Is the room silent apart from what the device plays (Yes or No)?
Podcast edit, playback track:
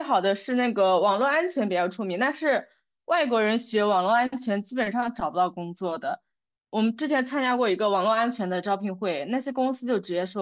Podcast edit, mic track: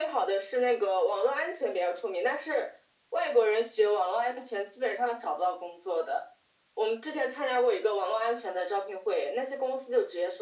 Yes